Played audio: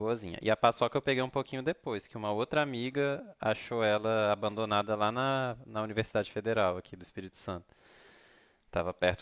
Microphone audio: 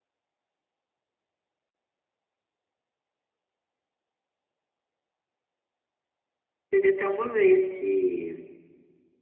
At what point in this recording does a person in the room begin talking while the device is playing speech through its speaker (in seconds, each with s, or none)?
6.7 s